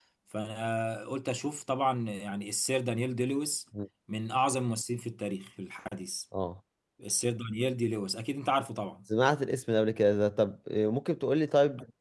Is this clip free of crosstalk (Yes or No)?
Yes